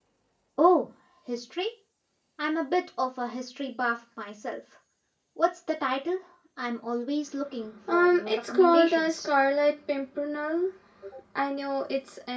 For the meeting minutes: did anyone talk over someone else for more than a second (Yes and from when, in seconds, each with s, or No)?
Yes, from 7.9 s